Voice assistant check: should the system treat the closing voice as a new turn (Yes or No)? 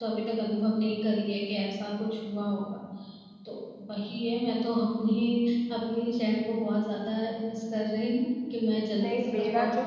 Yes